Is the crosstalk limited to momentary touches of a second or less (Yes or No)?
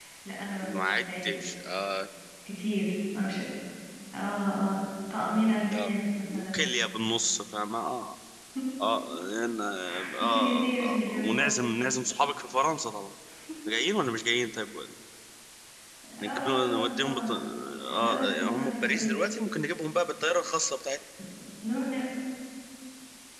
No